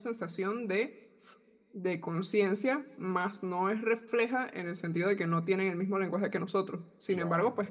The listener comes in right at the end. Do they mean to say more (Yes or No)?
No